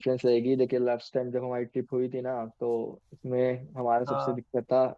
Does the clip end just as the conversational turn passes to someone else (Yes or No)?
No